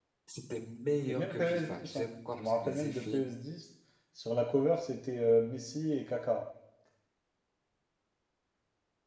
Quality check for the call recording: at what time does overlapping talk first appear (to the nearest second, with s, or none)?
1 s